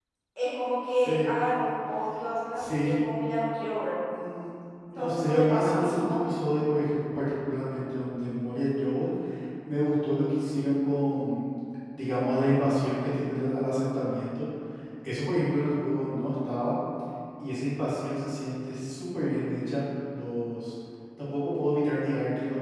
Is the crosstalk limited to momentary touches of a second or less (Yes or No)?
No